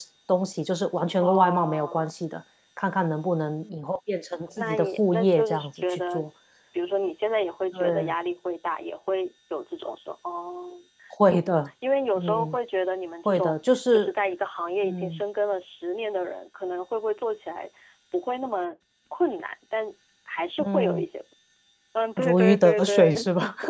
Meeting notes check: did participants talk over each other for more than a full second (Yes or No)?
Yes